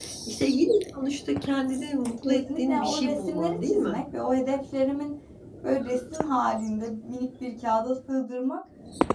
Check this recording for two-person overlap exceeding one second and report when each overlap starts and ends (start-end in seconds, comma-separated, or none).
2.2-4.0